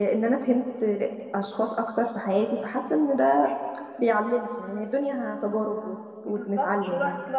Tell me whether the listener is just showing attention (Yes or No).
No